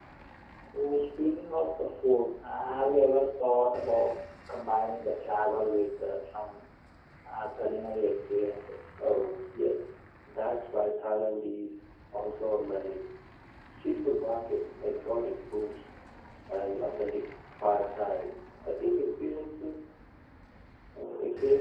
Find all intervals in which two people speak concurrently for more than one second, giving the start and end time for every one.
none

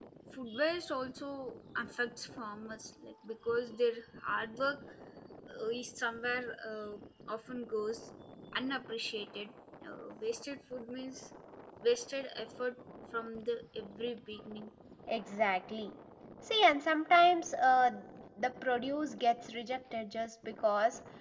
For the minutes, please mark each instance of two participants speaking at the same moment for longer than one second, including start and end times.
none

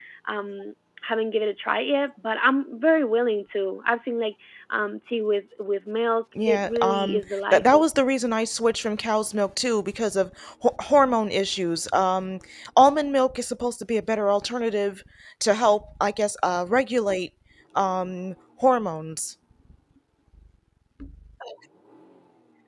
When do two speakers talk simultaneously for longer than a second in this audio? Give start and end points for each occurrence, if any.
6.5-7.9

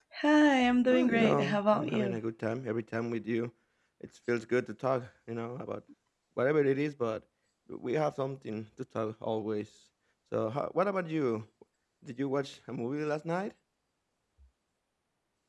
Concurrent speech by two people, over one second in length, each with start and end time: 0.9-2.2

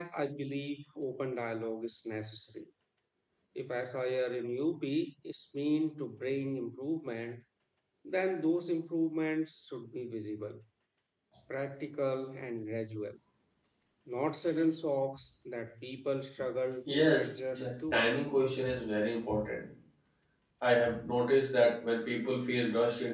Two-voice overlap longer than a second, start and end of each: 16.9-18.1

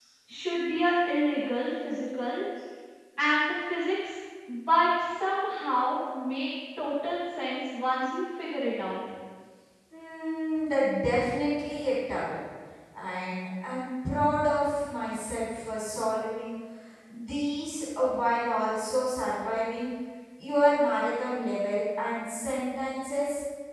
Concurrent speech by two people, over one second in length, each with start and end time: none

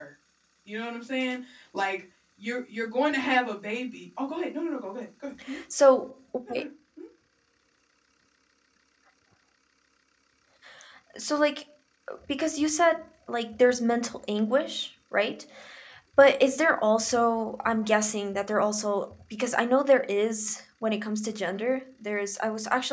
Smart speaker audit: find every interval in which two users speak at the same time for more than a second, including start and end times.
none

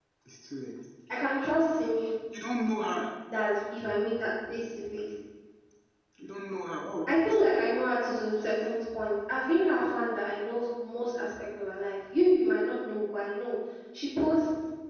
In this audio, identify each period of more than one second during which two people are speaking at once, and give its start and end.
none

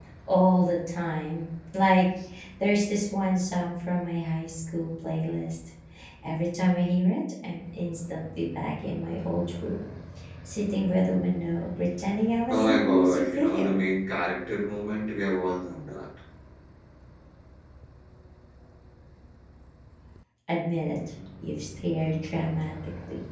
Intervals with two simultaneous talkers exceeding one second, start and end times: 12.5-13.8

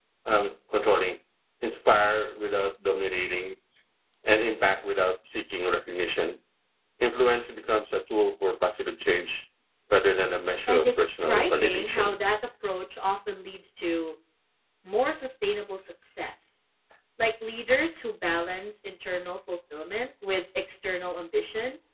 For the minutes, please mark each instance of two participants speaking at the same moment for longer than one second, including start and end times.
10.7-12.2

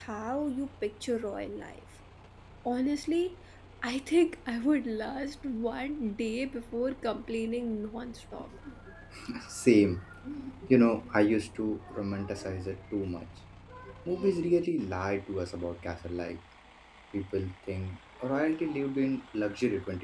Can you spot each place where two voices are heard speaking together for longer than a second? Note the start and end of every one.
none

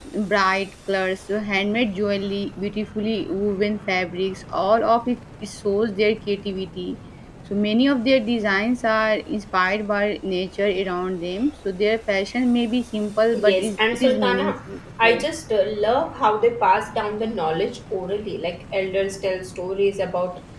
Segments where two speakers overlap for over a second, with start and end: 13.3-14.5

